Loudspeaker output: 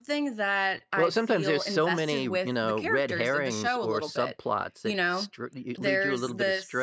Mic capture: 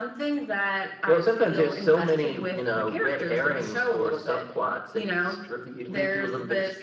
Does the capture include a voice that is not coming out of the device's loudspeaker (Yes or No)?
No